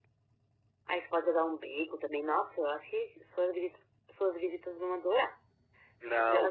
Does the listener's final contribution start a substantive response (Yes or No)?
Yes